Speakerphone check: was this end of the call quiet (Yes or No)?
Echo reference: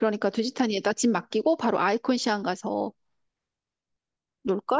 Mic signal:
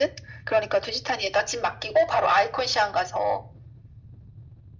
Yes